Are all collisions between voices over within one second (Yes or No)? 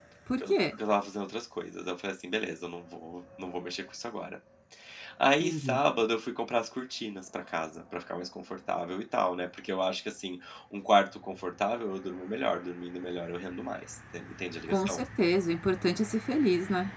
Yes